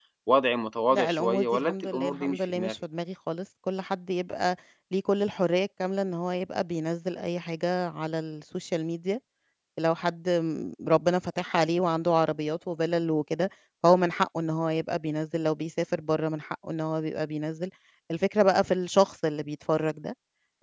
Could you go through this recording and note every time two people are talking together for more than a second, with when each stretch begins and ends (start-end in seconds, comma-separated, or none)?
0.9-2.8